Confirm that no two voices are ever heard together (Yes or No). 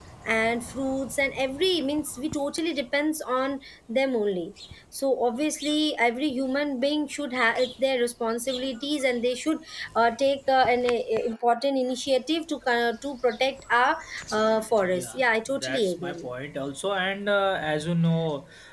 No